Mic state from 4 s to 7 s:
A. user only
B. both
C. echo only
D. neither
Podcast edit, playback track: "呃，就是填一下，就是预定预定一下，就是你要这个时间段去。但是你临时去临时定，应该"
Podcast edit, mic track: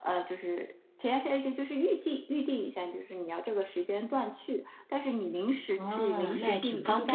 B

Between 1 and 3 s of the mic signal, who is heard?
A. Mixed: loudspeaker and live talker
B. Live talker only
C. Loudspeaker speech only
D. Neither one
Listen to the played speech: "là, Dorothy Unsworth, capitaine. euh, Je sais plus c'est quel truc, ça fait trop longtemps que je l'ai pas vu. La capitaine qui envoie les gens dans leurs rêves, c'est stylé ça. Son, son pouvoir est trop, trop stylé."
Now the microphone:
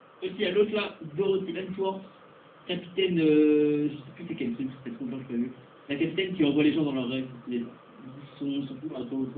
C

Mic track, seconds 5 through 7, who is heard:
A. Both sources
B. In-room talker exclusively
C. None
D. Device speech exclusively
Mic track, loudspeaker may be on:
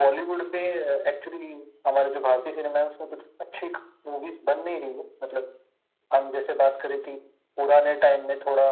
D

